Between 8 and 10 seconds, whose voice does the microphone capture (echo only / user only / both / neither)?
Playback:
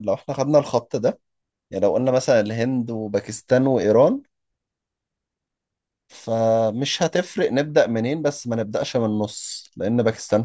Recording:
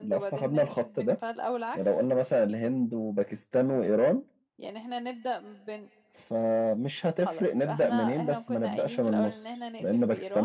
both